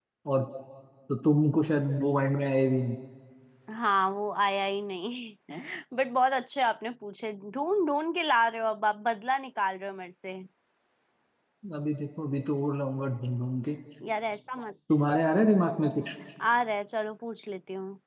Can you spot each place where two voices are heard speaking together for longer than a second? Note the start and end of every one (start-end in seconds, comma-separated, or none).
none